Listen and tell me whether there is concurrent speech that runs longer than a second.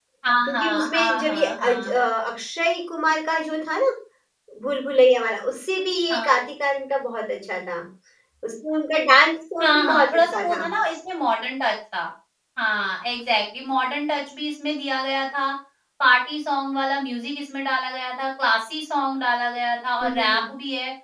Yes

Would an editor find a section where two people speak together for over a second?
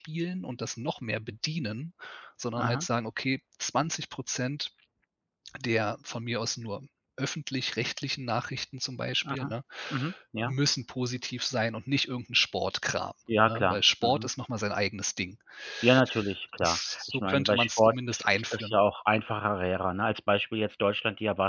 Yes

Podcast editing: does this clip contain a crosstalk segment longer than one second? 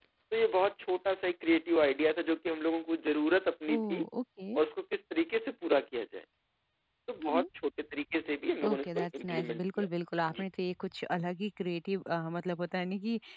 Yes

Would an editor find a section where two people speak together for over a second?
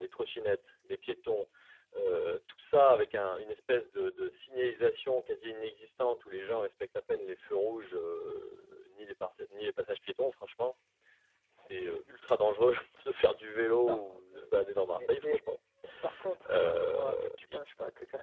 Yes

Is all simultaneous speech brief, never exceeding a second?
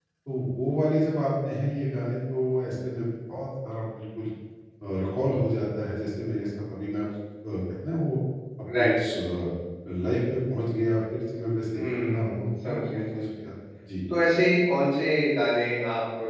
No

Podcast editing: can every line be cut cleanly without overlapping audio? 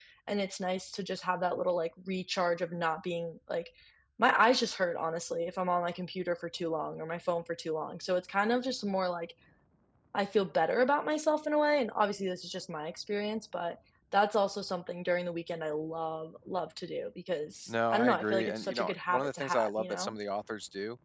No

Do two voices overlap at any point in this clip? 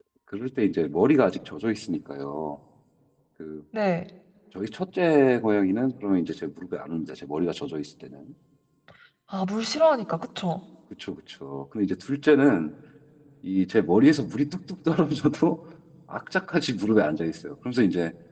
No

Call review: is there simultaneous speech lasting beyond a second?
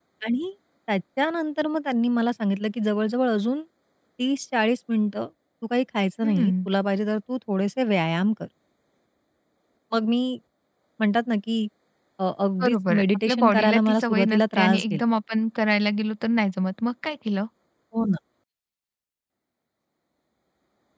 Yes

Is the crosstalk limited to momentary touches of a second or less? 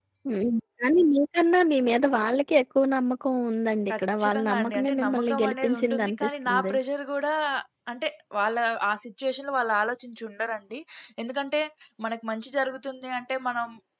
No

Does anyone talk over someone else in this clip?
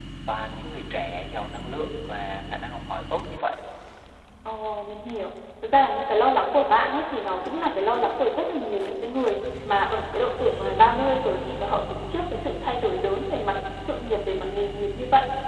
No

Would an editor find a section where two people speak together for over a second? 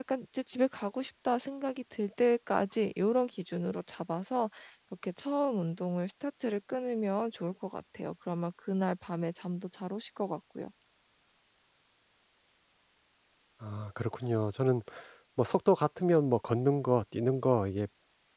No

